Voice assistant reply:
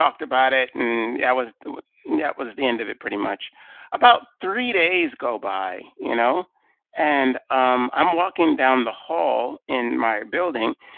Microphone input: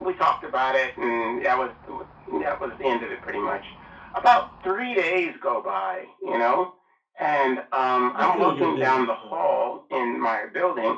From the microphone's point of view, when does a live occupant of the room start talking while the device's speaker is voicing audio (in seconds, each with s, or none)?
8.1 s